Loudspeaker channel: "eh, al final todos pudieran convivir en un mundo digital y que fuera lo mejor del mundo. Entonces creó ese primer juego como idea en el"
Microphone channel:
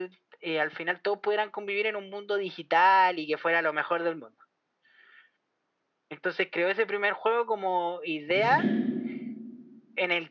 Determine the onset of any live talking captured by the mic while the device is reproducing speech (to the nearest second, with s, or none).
8 s